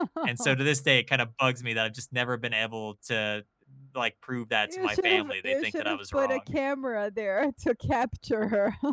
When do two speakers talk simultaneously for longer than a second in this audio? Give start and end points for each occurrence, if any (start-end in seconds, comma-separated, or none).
4.7-6.4